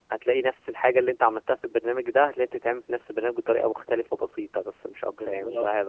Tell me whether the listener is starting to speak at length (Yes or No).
Yes